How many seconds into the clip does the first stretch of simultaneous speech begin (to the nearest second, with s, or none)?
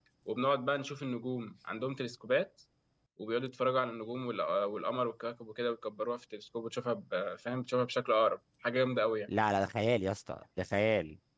none